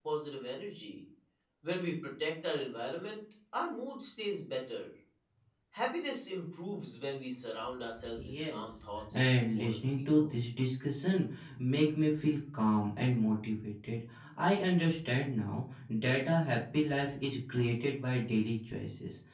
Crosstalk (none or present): present